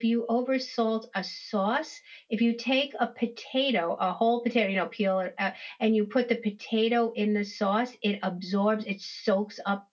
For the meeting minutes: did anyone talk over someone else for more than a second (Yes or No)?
No